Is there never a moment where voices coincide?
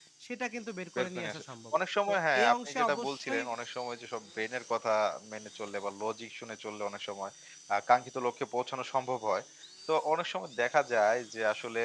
No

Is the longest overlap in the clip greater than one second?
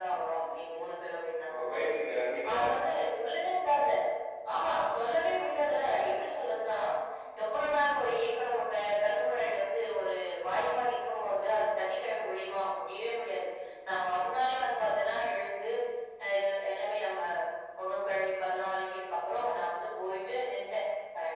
No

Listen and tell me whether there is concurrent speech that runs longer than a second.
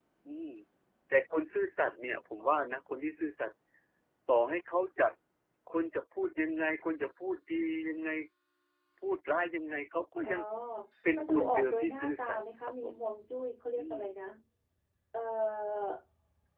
Yes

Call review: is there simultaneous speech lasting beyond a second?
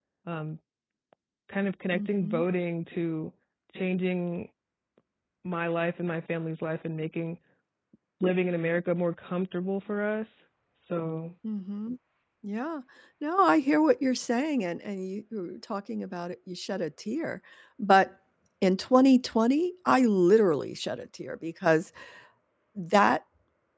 No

